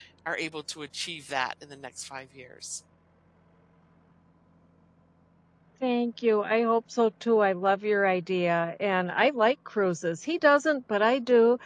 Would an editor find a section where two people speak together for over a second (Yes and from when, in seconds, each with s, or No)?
No